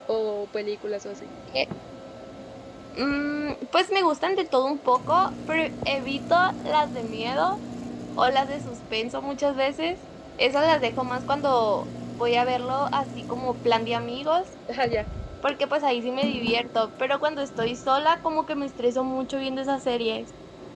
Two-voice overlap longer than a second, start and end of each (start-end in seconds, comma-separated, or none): none